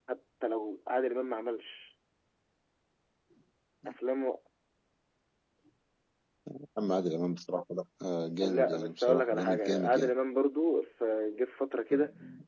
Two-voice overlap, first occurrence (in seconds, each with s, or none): 8.4 s